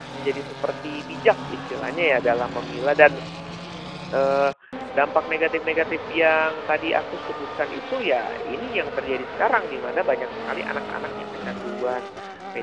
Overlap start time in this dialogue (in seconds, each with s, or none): none